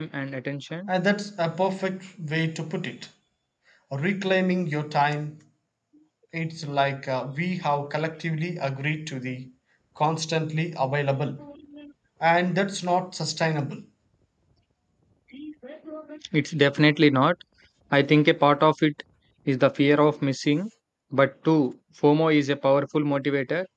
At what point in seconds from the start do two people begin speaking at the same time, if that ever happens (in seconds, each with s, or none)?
none